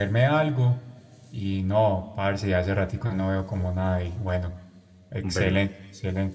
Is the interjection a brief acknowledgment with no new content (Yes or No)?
Yes